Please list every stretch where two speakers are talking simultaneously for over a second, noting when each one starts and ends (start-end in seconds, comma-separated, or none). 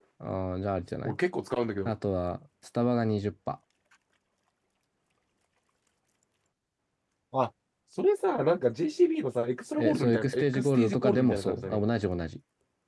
9.8-11.8